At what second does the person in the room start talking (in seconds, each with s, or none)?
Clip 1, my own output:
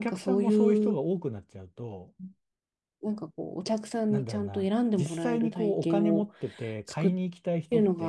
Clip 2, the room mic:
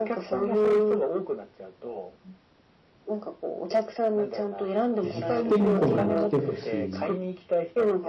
5.0 s